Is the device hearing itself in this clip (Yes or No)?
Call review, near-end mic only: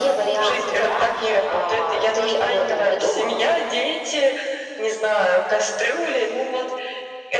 Yes